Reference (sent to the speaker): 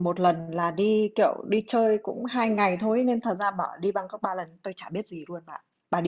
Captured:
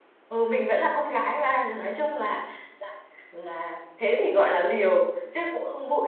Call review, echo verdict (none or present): none